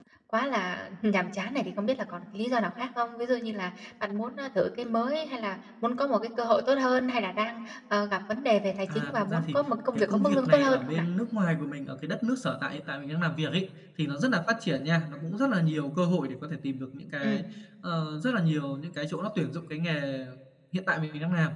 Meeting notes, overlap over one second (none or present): present